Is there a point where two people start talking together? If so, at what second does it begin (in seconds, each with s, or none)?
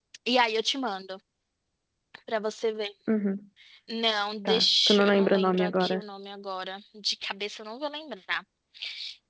4.4 s